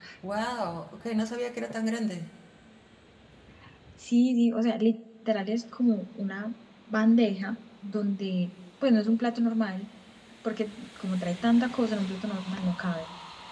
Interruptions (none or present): none